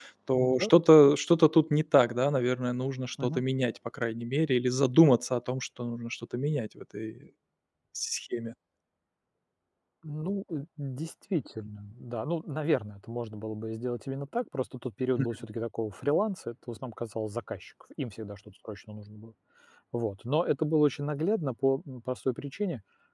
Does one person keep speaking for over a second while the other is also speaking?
No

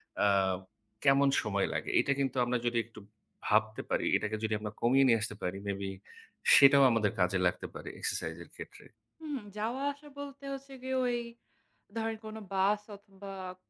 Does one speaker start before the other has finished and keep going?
No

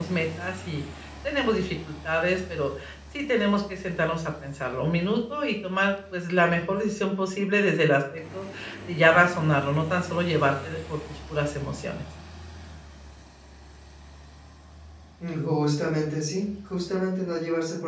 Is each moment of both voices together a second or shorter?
Yes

